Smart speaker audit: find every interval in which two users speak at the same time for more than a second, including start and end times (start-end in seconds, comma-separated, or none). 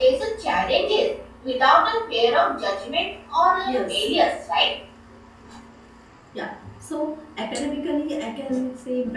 none